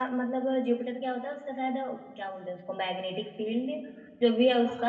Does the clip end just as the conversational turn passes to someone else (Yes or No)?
No